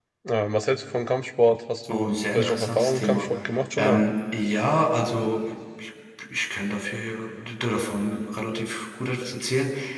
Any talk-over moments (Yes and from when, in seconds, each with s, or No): Yes, from 1.9 s